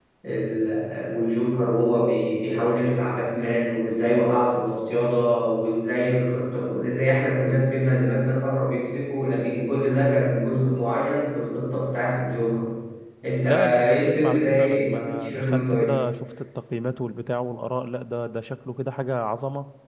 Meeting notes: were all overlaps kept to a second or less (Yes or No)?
No